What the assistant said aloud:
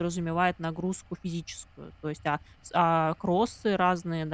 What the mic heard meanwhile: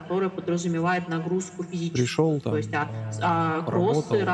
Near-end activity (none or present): present